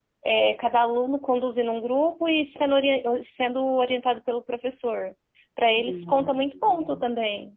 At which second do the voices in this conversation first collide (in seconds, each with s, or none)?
5.6 s